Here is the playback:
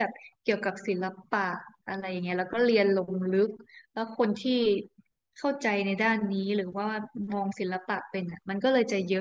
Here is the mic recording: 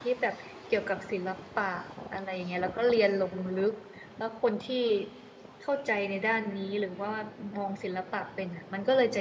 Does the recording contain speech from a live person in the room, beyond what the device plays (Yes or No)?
No